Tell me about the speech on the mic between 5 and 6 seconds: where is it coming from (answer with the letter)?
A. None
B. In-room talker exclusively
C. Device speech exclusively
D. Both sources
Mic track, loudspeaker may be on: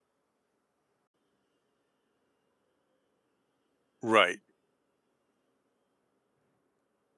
A